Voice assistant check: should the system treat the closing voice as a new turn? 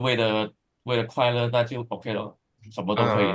Yes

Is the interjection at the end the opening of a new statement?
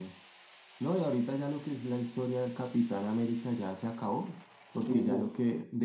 No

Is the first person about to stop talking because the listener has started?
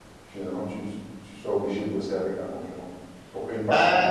Yes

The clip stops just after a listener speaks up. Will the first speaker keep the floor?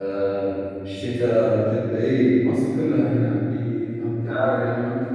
Yes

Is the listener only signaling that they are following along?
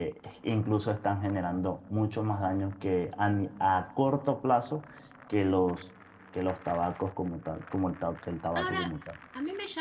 No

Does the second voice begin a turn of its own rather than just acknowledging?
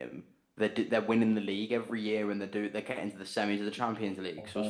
No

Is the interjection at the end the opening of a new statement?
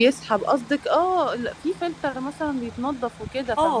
Yes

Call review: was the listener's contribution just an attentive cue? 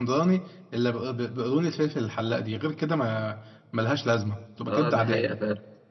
No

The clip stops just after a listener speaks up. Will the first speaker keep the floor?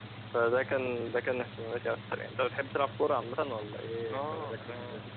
No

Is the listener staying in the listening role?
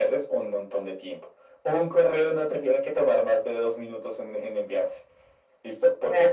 Yes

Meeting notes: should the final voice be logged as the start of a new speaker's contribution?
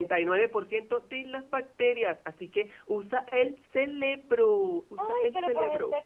Yes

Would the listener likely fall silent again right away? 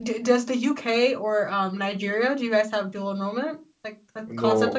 No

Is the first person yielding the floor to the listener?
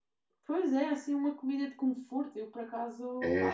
Yes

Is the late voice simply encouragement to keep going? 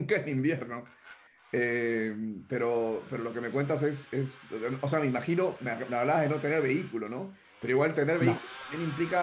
Yes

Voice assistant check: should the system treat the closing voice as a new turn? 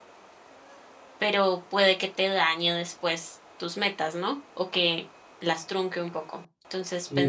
No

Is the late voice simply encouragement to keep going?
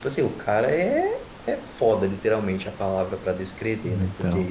Yes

